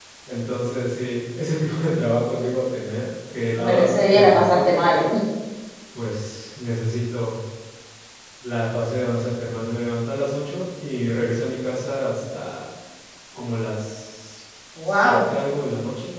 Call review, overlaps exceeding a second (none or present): present